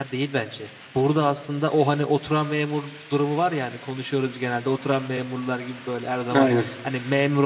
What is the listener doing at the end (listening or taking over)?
listening